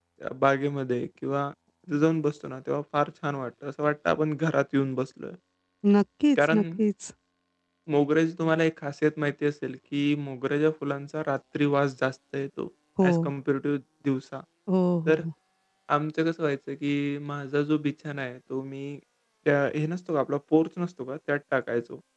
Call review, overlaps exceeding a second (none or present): none